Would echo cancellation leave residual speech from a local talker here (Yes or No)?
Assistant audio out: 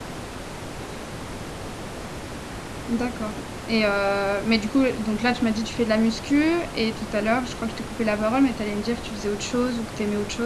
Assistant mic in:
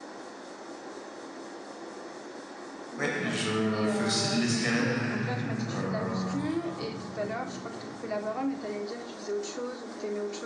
Yes